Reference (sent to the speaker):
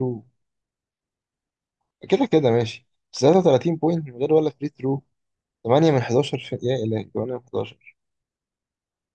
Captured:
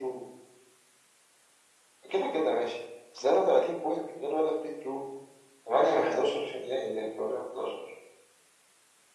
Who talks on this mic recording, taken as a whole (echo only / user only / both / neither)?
echo only